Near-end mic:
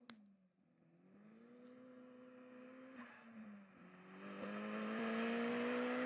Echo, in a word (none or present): none